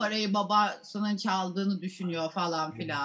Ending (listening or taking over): taking over